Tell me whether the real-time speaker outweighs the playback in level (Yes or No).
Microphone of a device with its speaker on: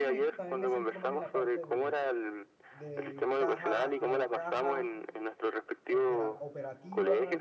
No